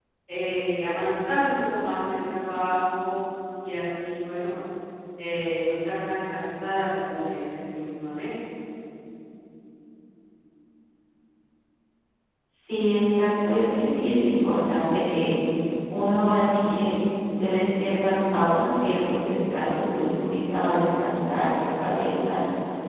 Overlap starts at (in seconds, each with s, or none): none